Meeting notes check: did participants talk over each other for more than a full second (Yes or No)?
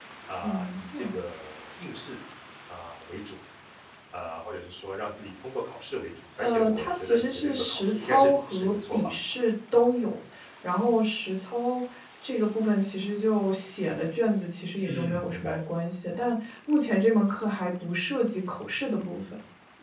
Yes